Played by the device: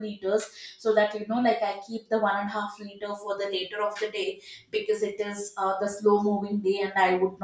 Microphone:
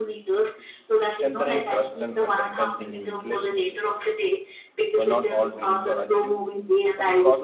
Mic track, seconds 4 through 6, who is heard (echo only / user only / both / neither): both